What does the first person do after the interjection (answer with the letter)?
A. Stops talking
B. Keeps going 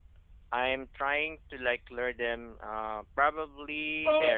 A